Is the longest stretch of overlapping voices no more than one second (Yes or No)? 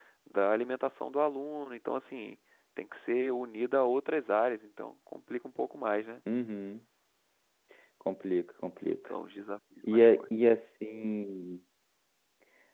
Yes